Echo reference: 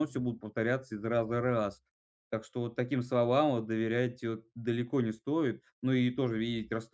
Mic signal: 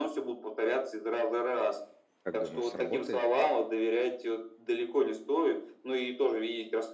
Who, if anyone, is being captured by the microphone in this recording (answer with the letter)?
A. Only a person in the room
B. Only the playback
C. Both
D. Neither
C